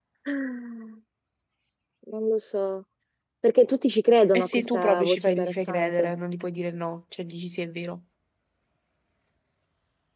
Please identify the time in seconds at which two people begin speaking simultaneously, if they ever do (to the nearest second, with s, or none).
4 s